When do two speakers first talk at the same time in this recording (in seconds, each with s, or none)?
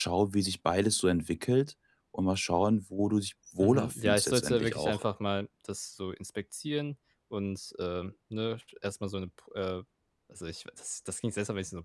3.6 s